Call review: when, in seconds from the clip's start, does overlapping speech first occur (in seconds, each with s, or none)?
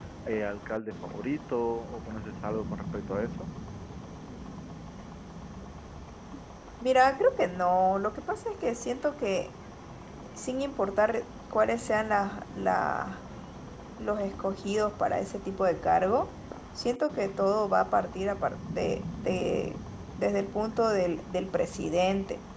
none